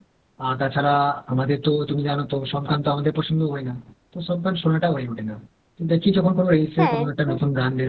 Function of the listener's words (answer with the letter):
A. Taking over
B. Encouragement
B